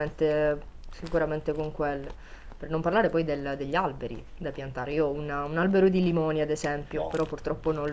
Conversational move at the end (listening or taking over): listening